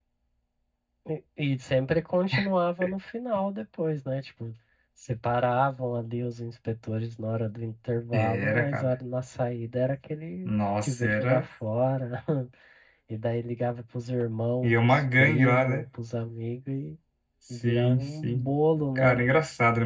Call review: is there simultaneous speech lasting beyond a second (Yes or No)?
Yes